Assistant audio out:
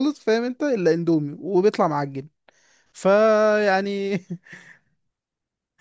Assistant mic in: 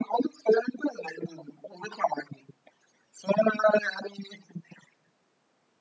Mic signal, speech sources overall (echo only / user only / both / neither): echo only